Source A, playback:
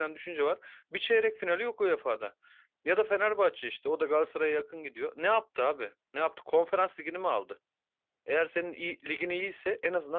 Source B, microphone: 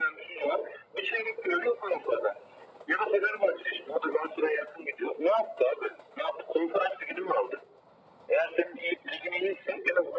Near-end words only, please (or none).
none